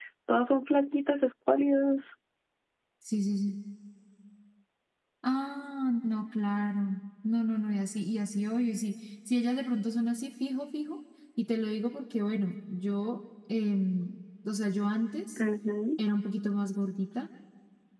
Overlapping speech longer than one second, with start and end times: none

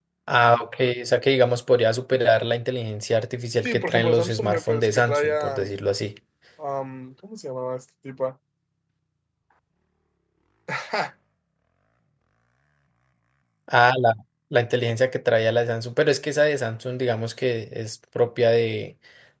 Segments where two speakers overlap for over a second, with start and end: 3.6-5.7

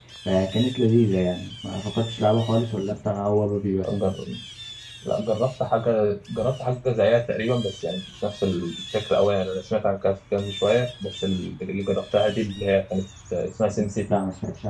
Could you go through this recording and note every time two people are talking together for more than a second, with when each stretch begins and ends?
none

